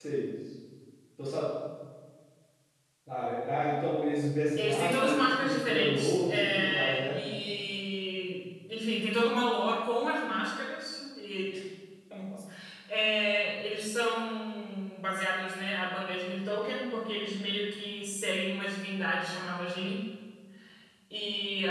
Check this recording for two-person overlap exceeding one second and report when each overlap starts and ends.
4.6-7.2

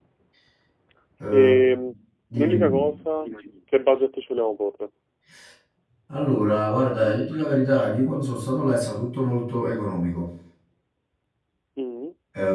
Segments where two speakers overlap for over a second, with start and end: none

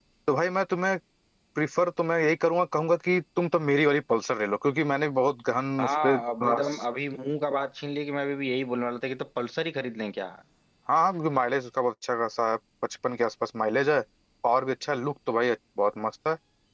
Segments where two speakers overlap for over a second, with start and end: none

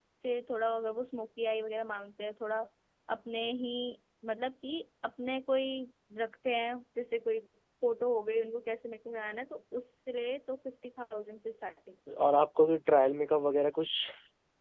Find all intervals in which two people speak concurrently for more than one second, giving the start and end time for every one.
none

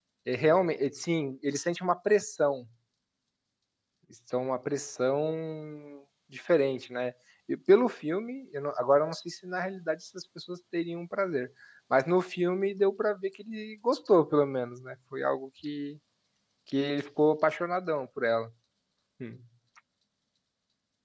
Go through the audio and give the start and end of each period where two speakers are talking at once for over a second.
none

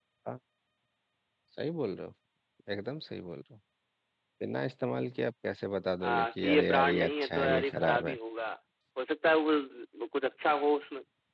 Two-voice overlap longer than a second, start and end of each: 6.0-8.1

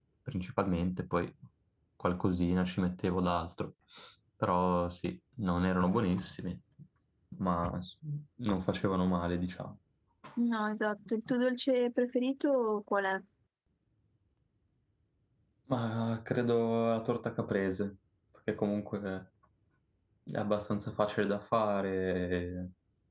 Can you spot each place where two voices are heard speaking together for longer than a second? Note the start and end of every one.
none

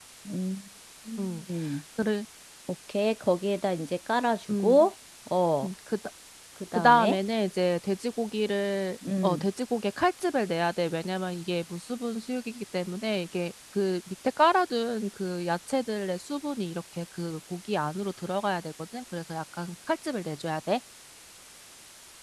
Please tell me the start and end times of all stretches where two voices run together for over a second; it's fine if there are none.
none

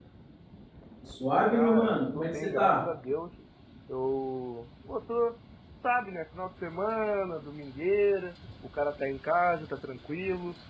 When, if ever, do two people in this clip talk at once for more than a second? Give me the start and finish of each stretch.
1.5-2.8

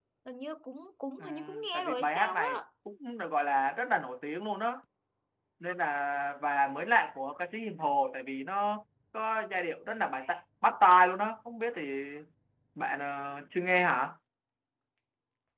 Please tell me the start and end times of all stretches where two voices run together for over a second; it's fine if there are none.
1.2-2.6

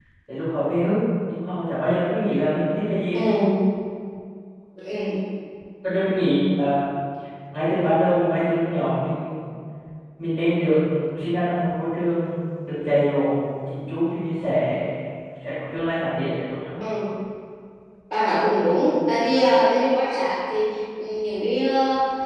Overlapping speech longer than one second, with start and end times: none

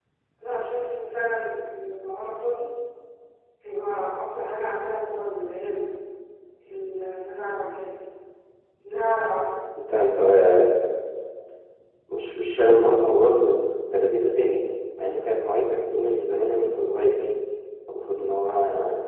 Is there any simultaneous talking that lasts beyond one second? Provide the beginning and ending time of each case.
none

